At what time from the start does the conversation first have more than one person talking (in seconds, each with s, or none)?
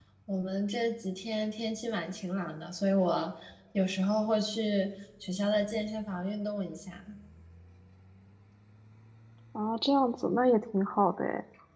none